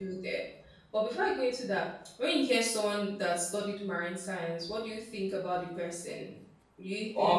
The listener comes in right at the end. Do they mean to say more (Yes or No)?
No